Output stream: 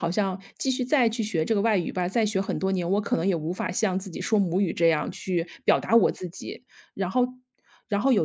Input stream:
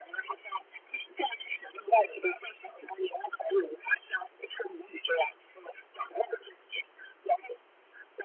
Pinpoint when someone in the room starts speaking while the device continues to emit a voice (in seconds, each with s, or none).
none